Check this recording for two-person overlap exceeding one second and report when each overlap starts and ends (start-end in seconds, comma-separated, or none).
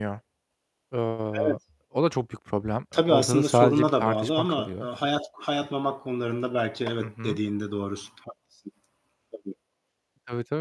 2.9-4.9